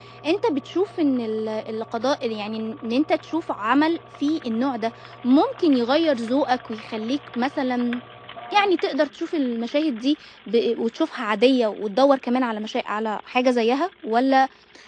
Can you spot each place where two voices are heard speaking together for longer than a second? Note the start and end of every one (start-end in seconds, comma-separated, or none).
none